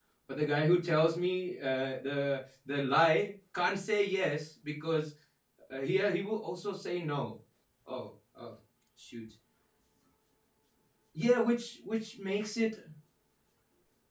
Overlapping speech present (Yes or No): No